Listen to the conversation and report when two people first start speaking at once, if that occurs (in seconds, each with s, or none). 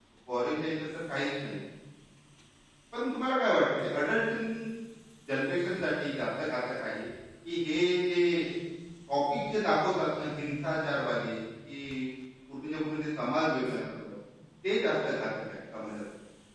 none